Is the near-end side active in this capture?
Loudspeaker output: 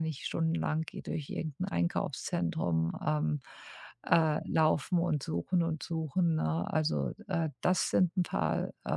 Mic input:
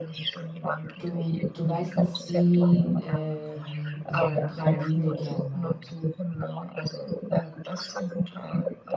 Yes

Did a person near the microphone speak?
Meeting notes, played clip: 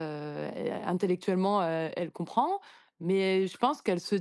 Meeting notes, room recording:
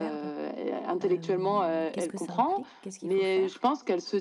Yes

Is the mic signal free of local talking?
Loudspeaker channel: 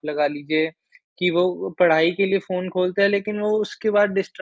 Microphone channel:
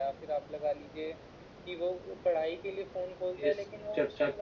No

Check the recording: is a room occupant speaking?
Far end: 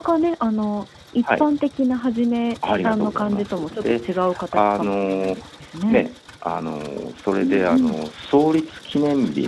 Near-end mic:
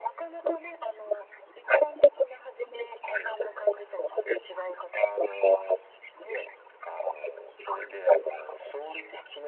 No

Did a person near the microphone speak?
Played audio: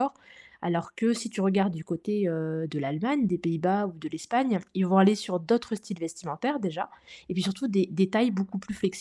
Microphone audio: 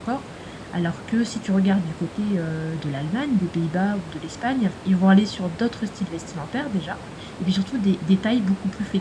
No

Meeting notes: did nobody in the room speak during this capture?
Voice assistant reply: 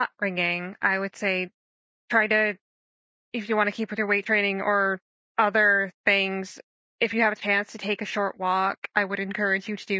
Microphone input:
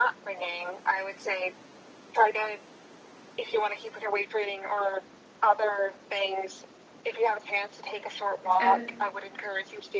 No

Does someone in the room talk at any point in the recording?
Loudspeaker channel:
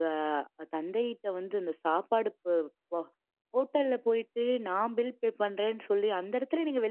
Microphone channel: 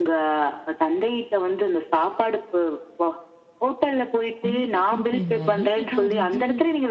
Yes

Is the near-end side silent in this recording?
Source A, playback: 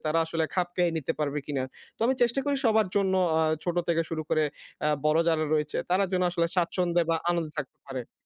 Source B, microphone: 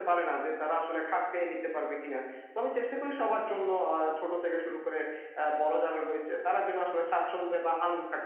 Yes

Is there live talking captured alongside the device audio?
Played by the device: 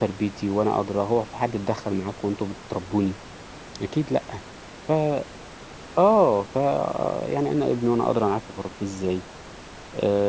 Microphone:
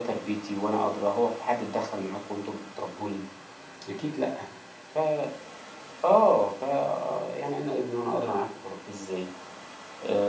No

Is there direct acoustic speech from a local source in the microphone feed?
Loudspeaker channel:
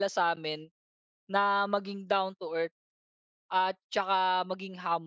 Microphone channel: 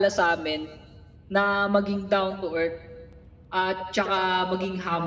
No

